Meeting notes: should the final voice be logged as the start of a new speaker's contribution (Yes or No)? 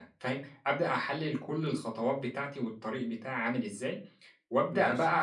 No